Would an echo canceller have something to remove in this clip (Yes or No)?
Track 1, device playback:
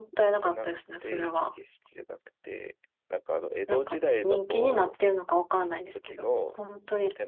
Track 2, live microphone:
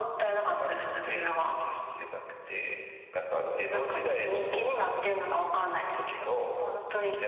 Yes